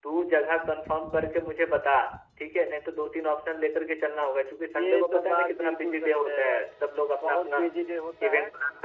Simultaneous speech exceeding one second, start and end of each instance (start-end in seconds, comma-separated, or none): 4.7-6.6